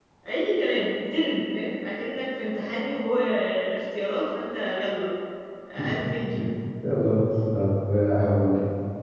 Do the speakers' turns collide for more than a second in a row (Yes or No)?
No